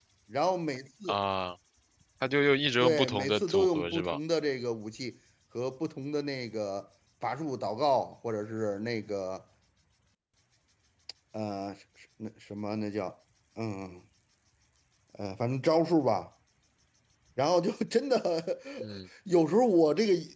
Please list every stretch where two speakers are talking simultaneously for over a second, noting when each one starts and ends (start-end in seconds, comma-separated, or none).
2.8-4.2